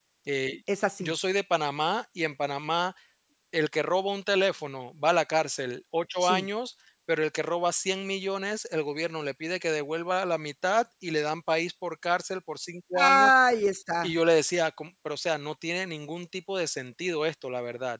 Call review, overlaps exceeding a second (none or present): none